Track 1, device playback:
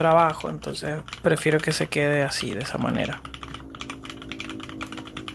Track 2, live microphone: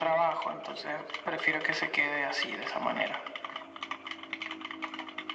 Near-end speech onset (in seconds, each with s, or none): none